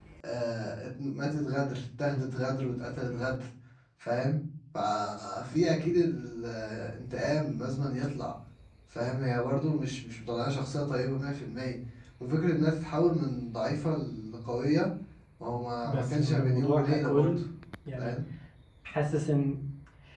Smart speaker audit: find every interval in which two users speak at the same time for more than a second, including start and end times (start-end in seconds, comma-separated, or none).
15.8-17.4